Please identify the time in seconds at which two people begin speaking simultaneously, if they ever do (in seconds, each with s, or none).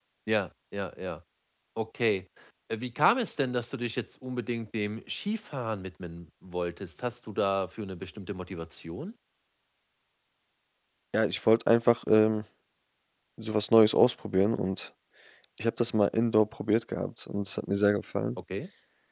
none